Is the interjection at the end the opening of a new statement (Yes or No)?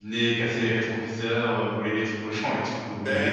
Yes